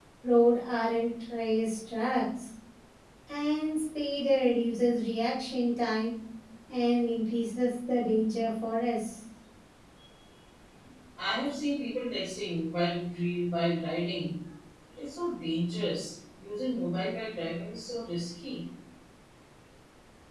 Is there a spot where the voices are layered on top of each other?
No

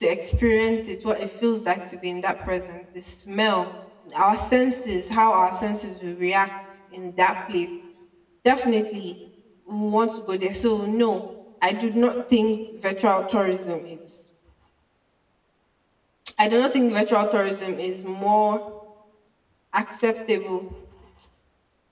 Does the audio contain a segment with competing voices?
No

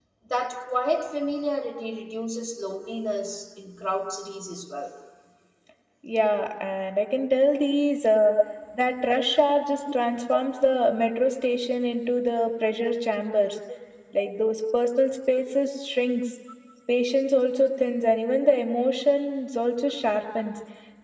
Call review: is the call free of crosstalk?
Yes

